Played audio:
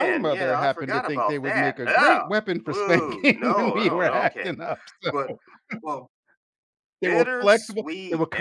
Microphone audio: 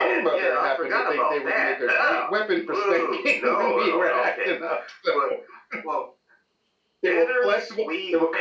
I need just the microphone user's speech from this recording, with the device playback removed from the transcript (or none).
none